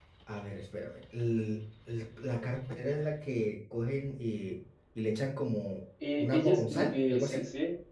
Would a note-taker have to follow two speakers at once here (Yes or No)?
Yes